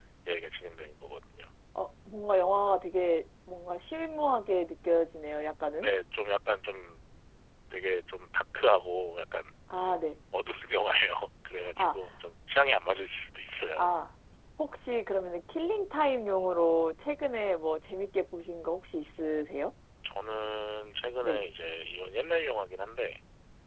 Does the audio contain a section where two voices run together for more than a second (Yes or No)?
No